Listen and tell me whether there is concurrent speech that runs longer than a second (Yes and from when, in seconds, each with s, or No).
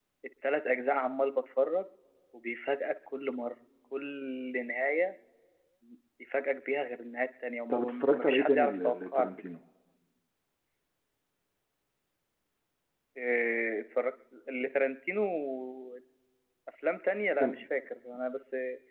Yes, from 7.7 s